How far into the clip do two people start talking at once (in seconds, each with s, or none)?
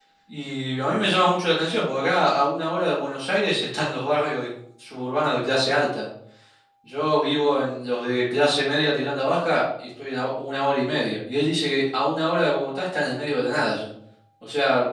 none